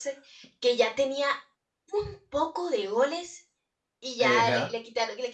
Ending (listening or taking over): listening